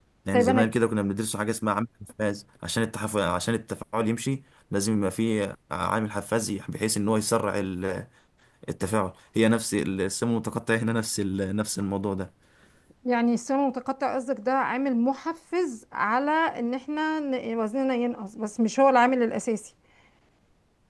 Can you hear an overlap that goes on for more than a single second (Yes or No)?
No